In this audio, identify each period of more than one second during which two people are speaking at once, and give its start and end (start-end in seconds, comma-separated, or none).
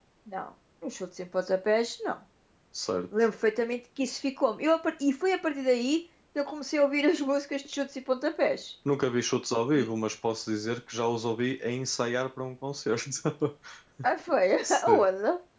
none